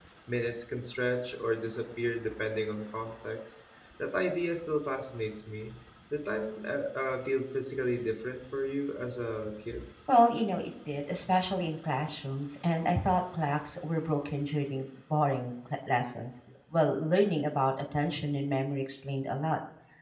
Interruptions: none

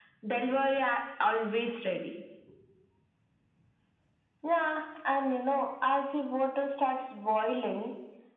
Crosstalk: none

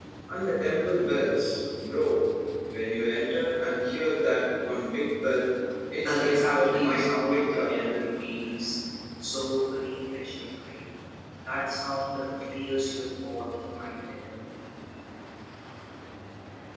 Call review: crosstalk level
present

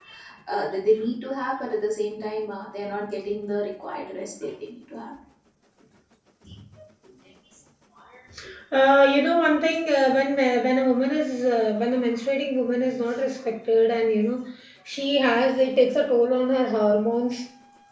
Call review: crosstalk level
none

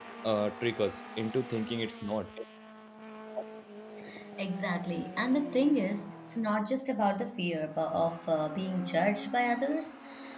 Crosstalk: none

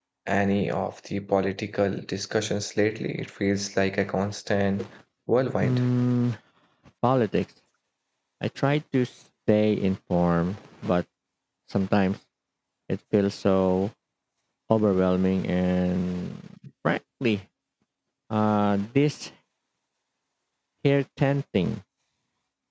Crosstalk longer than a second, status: none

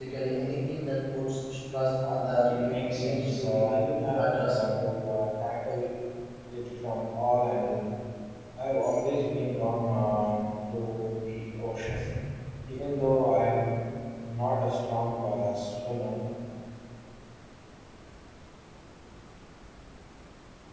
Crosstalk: present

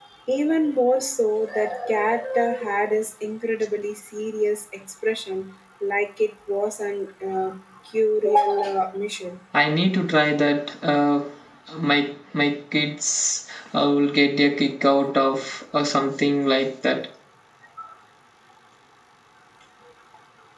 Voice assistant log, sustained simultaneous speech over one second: none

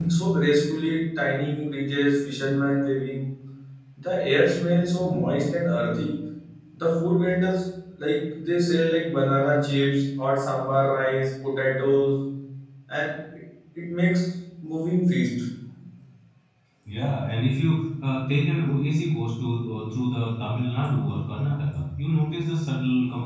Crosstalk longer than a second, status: none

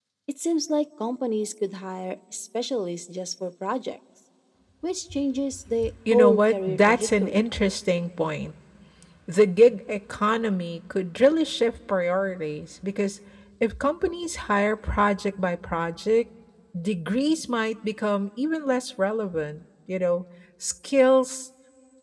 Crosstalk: present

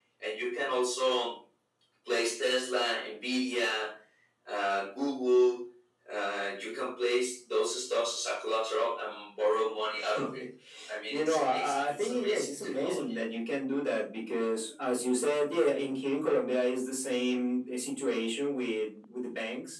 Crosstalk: present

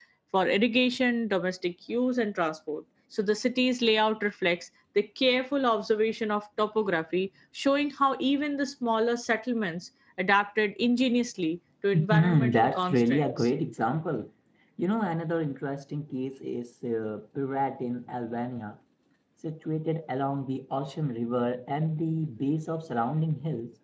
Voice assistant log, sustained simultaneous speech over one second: present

